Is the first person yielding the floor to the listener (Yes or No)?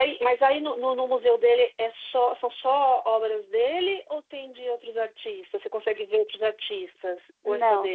Yes